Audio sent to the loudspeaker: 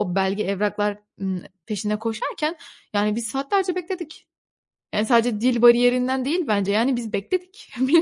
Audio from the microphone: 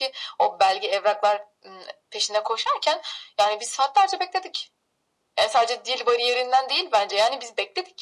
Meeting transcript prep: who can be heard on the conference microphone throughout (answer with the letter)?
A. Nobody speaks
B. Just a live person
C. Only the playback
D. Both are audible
C